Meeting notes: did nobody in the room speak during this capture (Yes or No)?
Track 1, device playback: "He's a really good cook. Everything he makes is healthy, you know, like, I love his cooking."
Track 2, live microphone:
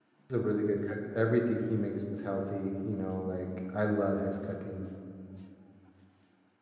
Yes